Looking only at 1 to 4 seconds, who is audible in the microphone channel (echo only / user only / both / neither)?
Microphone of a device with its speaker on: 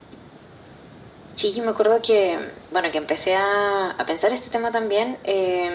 echo only